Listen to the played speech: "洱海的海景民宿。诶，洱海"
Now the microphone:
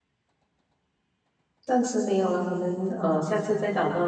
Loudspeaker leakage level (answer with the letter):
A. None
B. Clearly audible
A